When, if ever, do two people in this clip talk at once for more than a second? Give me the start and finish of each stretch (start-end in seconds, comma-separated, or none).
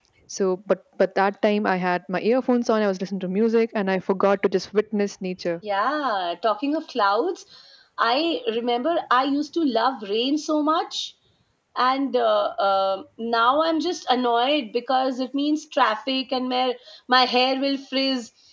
none